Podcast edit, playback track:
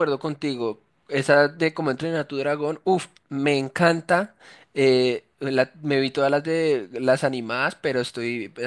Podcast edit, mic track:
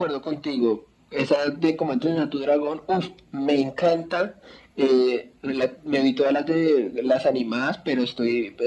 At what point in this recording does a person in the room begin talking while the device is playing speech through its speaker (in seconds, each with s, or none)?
none